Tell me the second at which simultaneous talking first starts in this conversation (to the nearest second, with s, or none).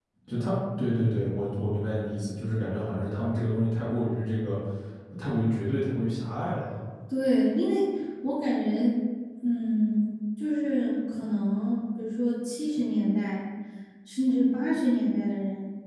none